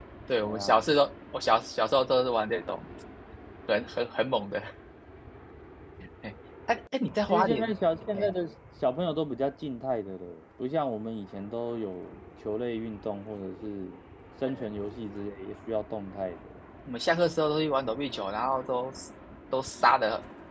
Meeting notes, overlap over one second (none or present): none